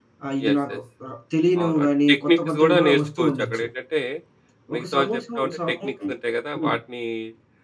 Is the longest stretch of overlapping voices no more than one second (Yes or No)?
No